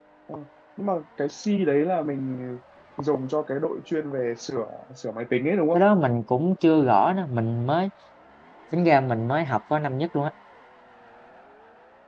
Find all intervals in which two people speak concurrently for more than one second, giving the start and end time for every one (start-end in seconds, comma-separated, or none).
none